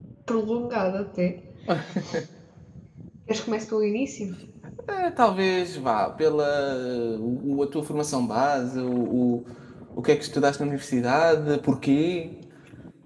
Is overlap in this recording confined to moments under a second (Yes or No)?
Yes